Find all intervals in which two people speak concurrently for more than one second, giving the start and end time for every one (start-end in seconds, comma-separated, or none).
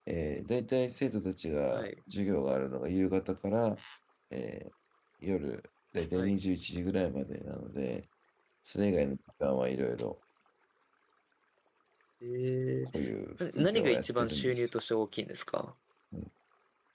13.4-14.7